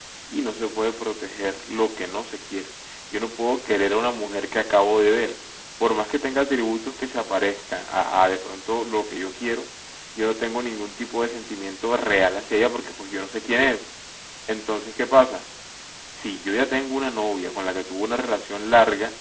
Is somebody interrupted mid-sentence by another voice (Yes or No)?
No